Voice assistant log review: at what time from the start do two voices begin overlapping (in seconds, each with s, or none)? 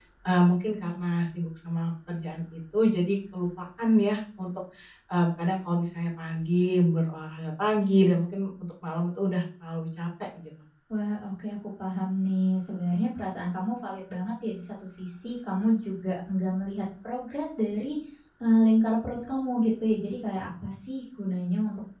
none